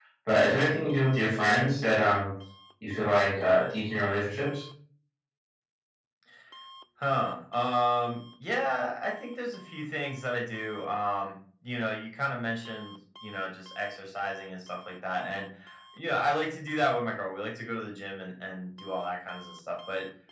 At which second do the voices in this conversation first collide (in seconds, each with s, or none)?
none